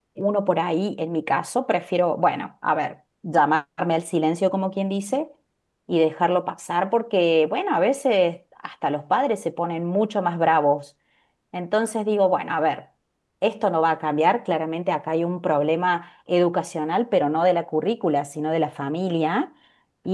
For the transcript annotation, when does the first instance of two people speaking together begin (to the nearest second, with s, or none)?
none